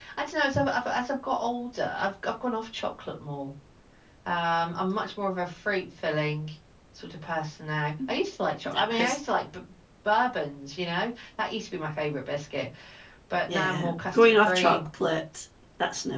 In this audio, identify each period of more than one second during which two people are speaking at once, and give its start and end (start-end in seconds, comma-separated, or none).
13.5-14.8